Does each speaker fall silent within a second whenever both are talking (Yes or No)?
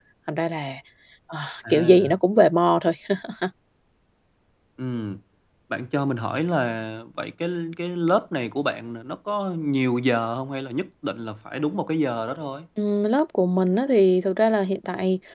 Yes